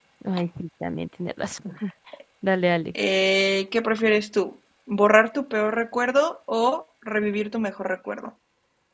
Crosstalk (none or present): none